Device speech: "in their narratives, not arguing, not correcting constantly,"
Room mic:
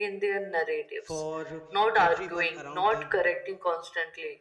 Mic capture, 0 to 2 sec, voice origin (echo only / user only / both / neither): both